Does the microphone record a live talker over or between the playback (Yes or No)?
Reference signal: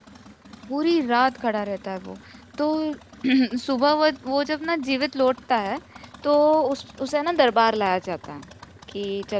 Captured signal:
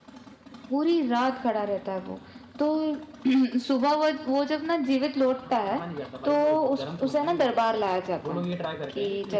Yes